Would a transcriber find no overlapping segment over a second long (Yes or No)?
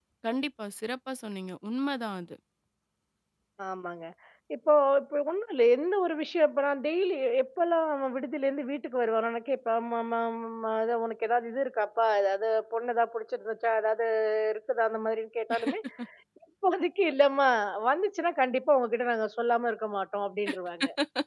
Yes